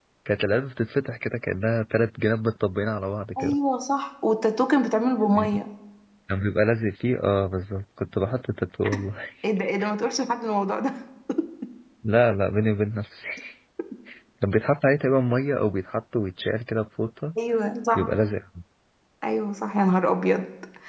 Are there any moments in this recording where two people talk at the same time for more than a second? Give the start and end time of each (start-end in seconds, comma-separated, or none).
none